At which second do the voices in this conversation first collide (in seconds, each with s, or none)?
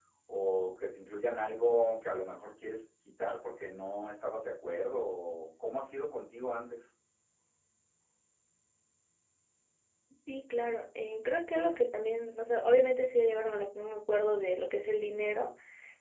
none